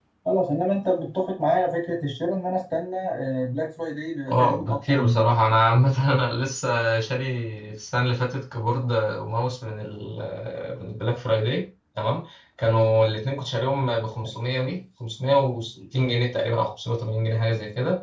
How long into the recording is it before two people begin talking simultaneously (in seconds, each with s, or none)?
4.3 s